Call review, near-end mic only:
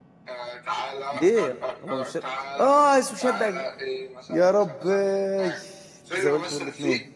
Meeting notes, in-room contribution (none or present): present